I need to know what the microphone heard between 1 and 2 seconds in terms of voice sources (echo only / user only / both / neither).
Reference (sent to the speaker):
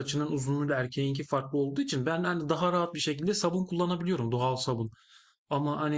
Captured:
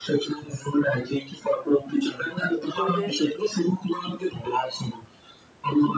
echo only